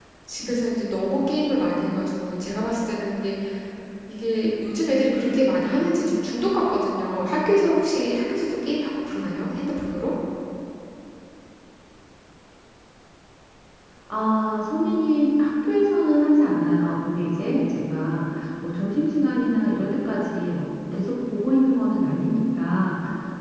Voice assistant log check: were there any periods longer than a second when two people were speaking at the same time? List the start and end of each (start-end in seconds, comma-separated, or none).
none